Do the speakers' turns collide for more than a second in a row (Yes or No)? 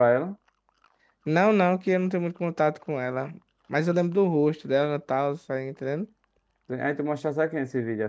No